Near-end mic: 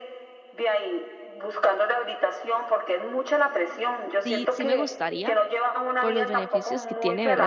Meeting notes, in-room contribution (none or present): present